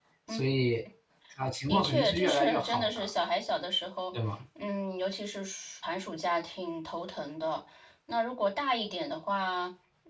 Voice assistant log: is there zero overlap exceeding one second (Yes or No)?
No